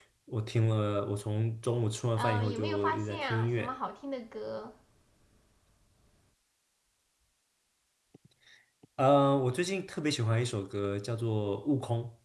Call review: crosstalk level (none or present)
present